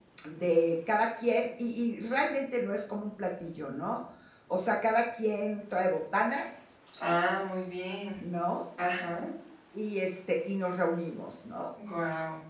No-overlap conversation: Yes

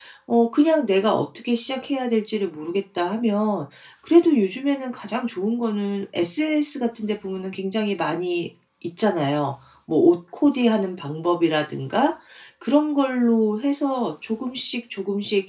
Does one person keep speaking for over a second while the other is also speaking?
No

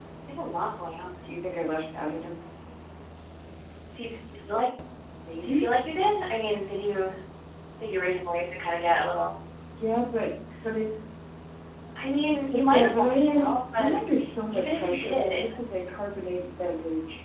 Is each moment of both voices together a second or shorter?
No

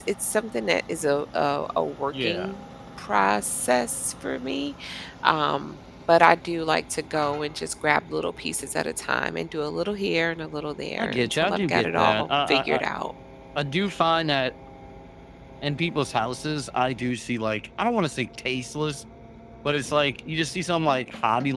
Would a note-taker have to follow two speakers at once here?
Yes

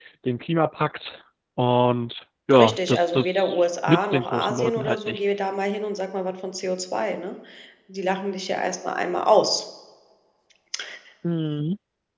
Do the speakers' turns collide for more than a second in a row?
Yes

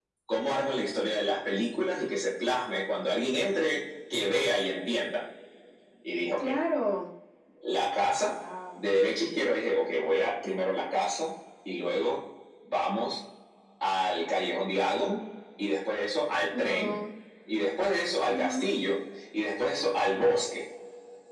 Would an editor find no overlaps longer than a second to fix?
Yes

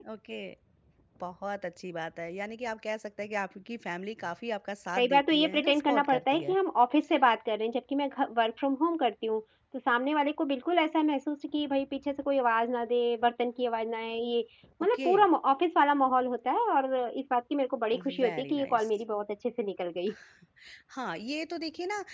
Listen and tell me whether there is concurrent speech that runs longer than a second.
Yes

